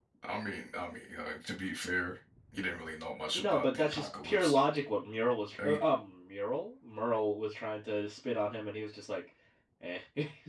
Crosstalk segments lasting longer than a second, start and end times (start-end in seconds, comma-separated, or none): 3.3-4.6